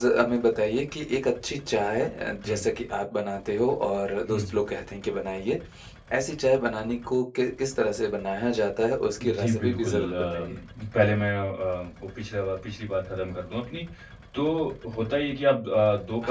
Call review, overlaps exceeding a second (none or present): present